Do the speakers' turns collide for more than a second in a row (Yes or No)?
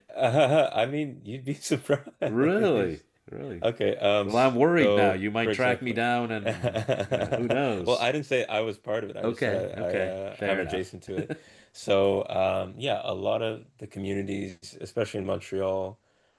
Yes